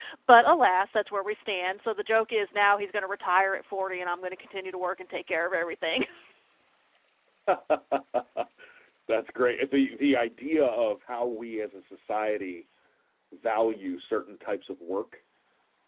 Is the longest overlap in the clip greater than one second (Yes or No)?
No